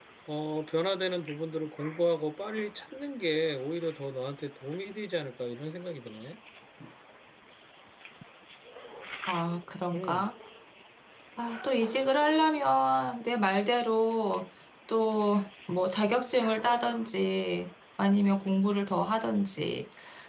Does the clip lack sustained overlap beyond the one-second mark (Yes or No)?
Yes